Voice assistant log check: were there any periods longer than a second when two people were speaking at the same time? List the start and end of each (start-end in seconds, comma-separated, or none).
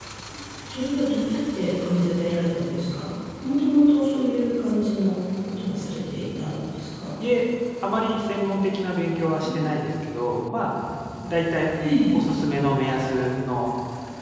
none